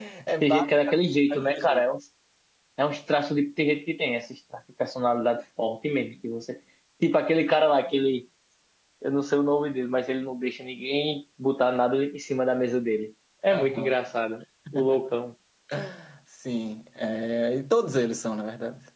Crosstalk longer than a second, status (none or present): none